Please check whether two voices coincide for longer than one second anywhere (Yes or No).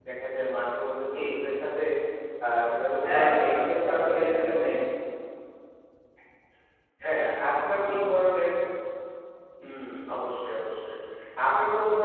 Yes